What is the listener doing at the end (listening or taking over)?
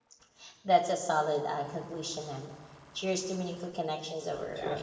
taking over